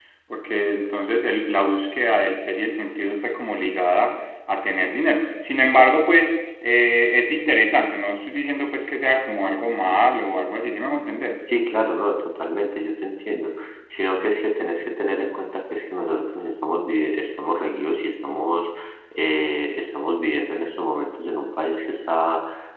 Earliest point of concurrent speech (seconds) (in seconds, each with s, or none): none